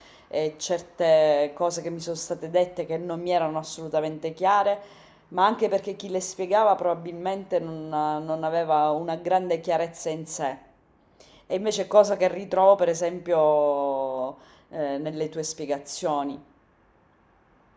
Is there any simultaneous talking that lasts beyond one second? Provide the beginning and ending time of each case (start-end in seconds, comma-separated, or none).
none